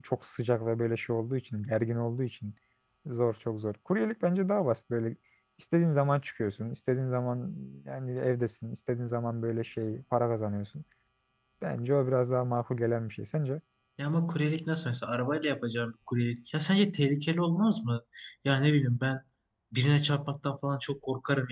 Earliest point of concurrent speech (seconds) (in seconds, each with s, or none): none